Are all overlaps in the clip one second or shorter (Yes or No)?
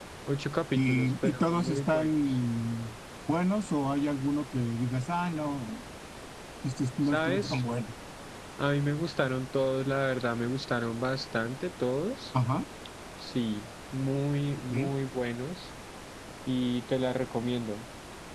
No